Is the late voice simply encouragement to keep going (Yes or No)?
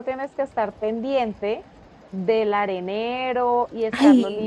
Yes